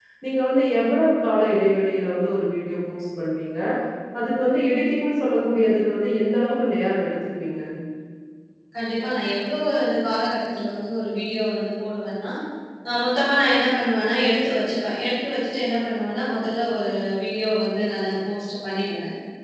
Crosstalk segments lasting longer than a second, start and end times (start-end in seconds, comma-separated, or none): none